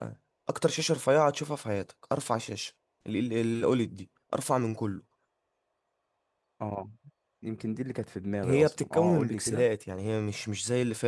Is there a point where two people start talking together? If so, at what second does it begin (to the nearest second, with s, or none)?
8 s